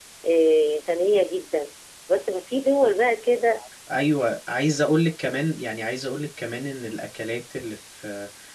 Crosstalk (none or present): none